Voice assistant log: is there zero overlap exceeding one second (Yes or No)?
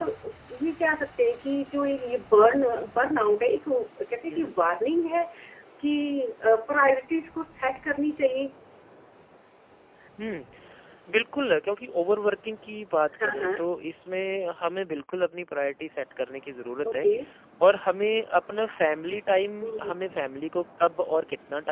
Yes